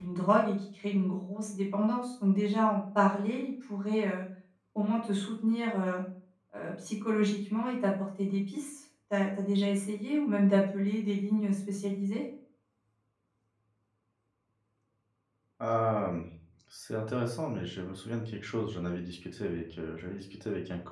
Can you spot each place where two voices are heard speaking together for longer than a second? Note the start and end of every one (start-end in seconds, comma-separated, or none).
none